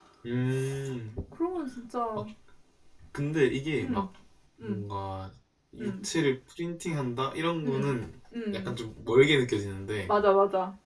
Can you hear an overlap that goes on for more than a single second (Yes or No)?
No